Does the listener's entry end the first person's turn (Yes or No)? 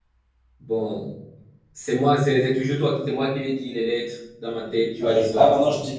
Yes